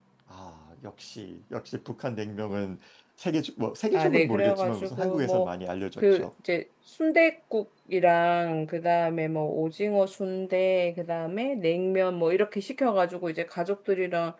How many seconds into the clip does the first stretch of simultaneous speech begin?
3.9 s

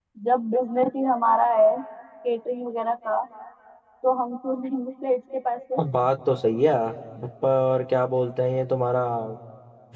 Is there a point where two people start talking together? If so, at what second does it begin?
none

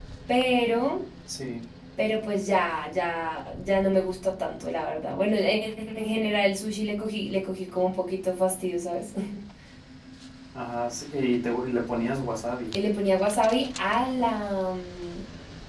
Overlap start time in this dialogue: none

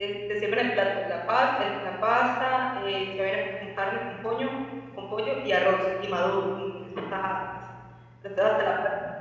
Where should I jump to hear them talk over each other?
none

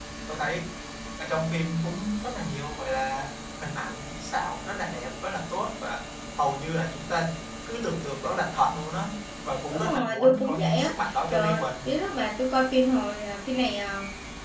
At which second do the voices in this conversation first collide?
9.7 s

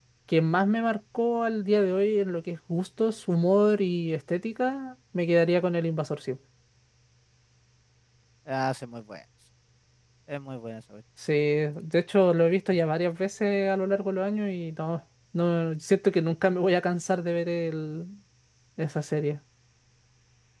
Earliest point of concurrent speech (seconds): none

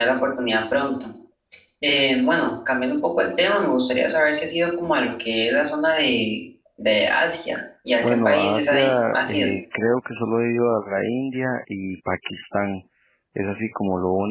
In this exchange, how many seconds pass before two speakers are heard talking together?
8.0 s

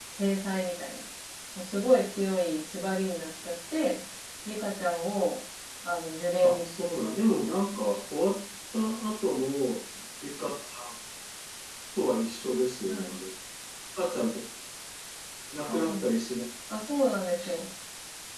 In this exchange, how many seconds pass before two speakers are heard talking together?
6.4 s

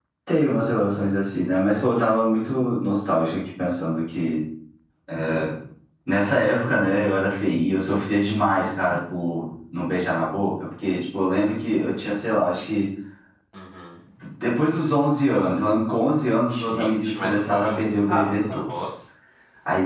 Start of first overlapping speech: 16.5 s

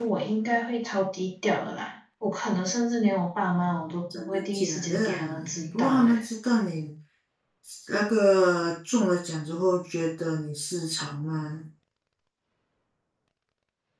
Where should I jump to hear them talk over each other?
4.1 s

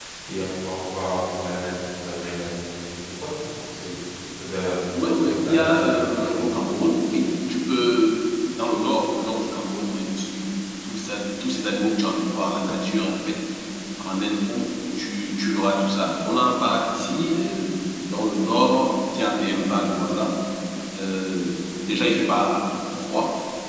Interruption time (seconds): 5.2 s

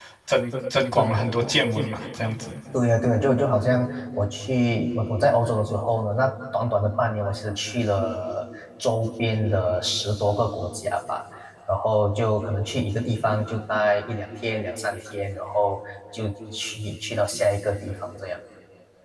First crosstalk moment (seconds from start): none

